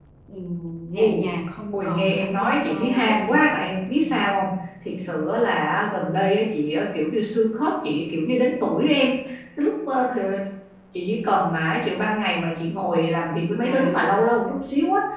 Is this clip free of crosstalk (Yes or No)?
No